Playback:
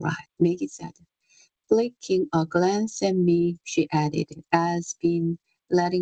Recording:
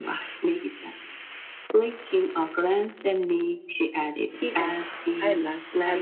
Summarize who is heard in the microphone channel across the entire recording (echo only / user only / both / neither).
both